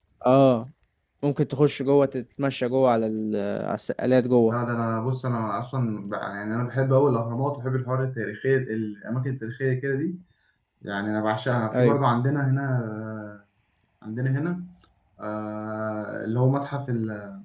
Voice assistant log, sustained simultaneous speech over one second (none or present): none